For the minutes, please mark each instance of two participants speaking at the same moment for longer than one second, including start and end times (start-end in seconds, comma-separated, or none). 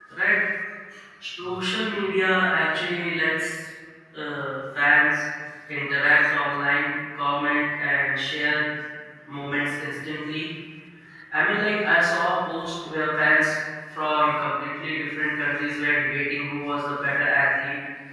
none